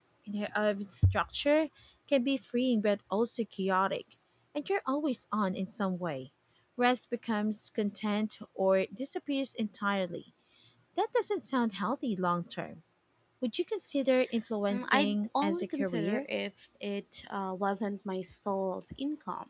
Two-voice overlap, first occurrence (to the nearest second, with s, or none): 15 s